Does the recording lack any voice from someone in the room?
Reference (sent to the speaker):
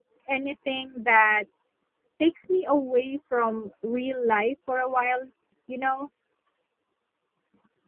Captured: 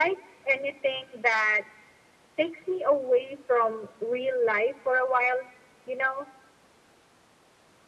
Yes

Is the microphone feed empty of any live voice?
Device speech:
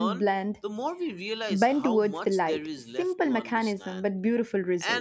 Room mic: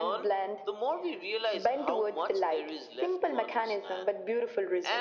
Yes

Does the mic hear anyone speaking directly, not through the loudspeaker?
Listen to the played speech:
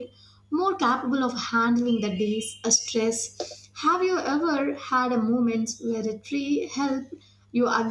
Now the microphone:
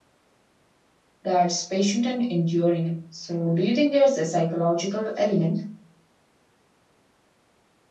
Yes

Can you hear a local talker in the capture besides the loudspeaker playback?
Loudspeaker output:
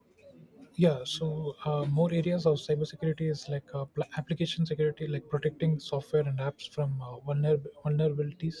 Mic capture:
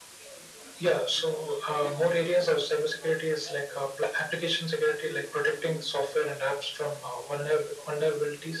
No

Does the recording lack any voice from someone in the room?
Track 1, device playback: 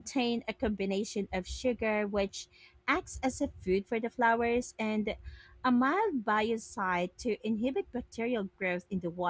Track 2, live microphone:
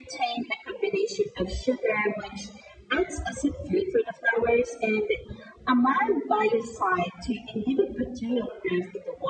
Yes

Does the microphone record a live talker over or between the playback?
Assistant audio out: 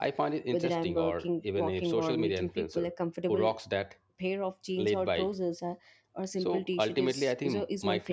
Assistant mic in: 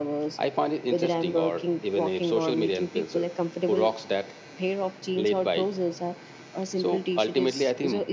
No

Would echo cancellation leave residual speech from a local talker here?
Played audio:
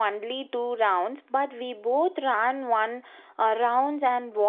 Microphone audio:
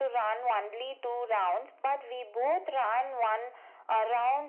No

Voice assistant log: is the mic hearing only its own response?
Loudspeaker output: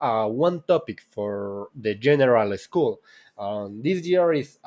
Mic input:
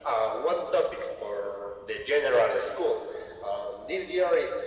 Yes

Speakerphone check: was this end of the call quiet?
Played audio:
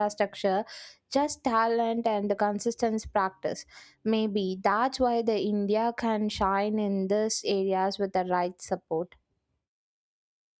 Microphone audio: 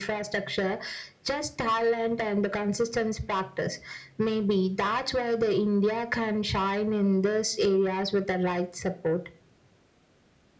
Yes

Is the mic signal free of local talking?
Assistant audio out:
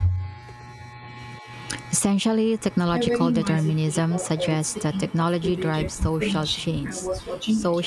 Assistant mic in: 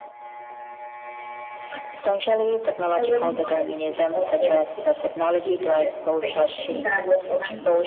No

